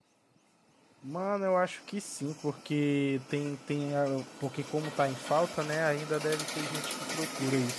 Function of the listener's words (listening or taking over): taking over